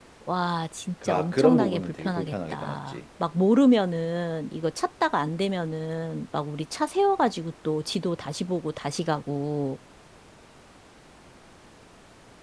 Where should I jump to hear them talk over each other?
1 s

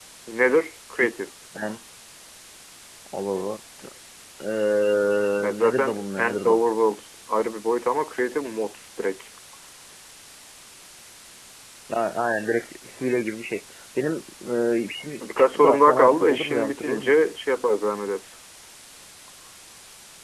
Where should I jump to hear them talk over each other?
5 s

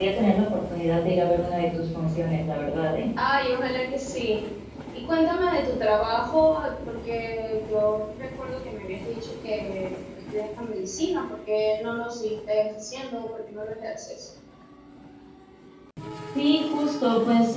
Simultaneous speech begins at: none

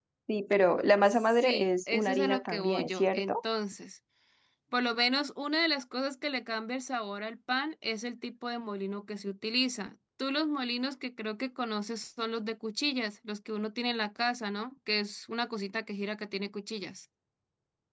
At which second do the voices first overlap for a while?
1 s

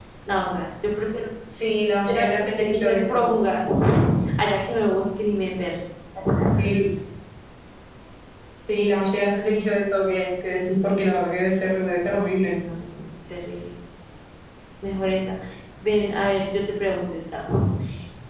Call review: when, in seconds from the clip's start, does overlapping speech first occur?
2 s

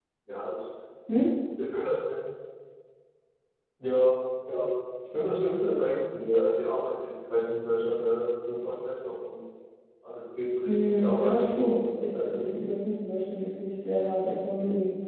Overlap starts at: 11 s

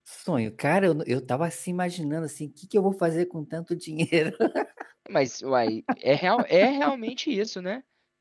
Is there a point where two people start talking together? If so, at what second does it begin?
none

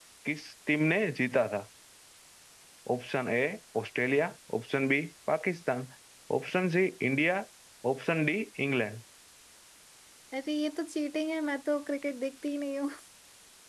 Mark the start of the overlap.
none

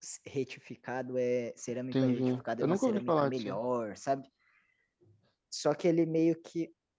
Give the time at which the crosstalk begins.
2 s

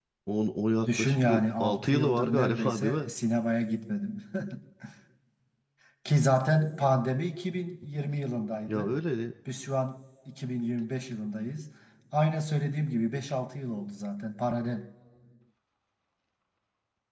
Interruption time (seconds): 1 s

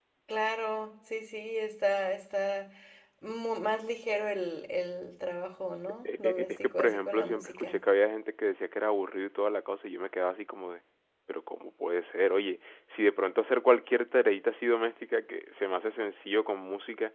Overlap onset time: 6 s

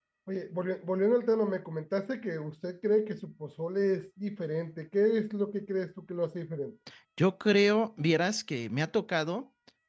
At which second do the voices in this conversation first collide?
none

